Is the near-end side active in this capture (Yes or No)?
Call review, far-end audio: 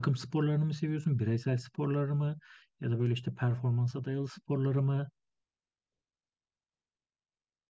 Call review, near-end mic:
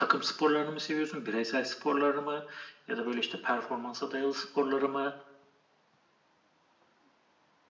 No